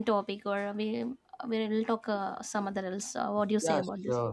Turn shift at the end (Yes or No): Yes